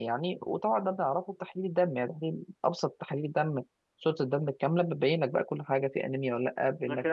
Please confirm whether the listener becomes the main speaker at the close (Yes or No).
Yes